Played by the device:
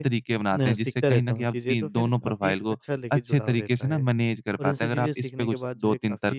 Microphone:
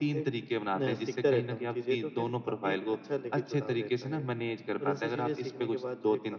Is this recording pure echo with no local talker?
Yes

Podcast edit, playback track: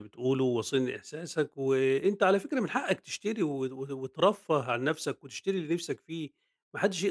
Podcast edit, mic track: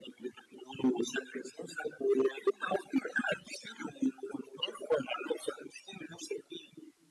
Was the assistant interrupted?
No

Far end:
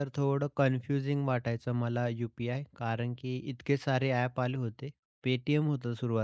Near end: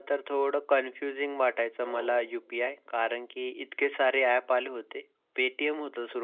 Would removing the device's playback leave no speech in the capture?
No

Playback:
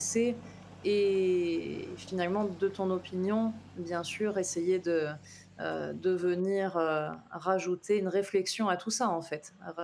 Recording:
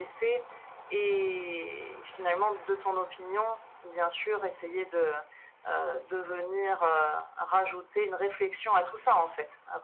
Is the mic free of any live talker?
Yes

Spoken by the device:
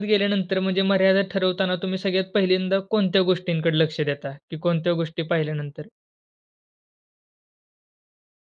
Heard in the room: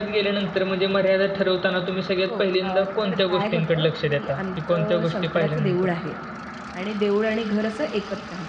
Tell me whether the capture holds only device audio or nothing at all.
No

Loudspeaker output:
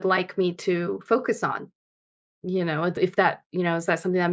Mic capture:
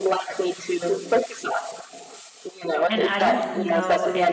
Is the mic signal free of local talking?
No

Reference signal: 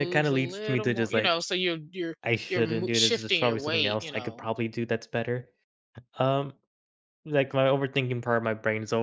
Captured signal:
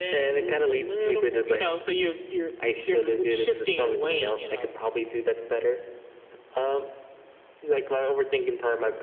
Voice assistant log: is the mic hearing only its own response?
Yes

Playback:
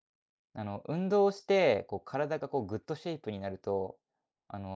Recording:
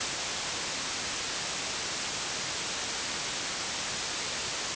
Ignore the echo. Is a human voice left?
No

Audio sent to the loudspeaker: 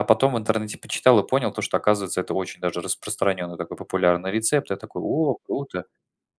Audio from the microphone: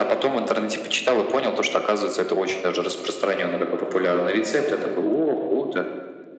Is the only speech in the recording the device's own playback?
Yes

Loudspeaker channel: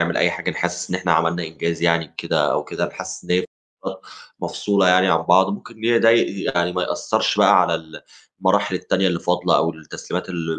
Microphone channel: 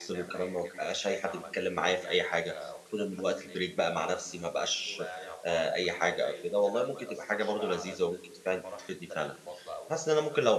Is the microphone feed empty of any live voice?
No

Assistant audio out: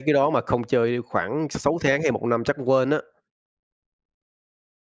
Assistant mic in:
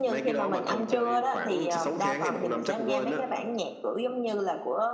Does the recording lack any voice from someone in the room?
No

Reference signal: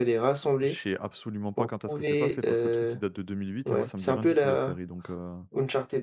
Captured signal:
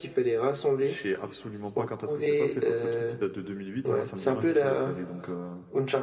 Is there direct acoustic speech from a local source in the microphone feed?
No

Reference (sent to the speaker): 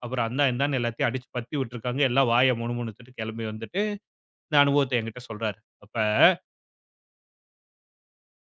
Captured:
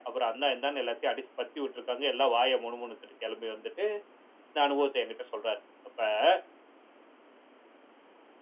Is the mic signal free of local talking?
Yes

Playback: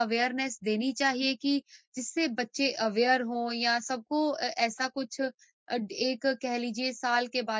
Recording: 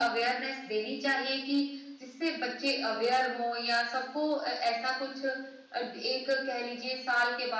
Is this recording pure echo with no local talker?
Yes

